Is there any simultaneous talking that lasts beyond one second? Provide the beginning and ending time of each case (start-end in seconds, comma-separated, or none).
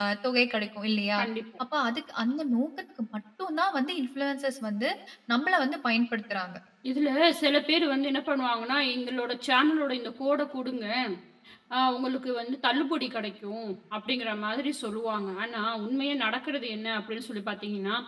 none